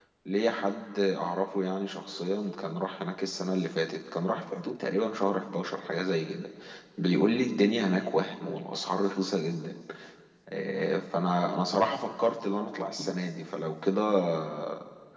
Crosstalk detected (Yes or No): No